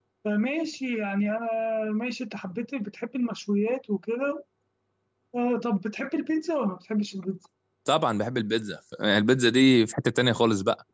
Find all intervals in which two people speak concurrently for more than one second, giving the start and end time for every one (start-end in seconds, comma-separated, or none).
none